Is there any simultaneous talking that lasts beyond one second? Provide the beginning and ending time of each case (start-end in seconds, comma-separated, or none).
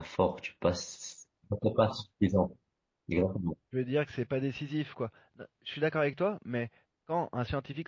none